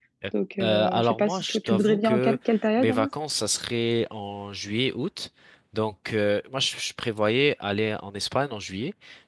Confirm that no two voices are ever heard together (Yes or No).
No